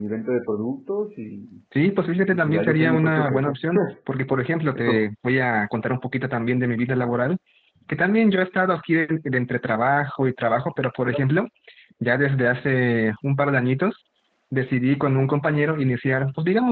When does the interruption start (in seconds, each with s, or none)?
2.3 s